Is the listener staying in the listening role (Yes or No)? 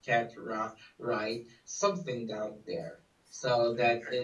Yes